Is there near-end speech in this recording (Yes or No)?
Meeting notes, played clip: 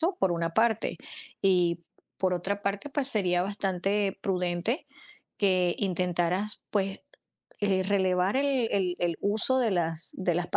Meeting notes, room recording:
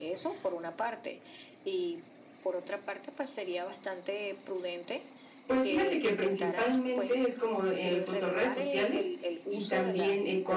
Yes